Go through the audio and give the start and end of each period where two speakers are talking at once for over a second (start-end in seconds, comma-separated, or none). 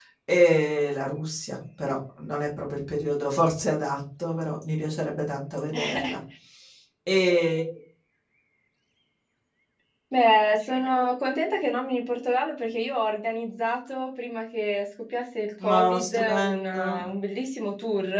15.6-17.1